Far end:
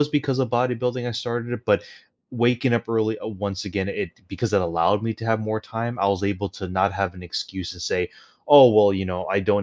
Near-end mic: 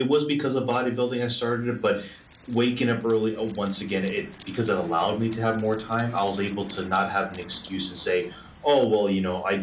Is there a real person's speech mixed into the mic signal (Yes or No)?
No